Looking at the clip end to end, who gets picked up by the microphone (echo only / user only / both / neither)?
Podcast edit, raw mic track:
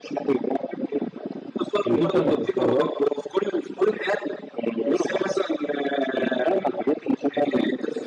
both